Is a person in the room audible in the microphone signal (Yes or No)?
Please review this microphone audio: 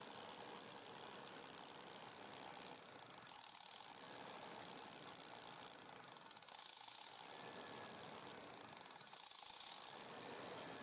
No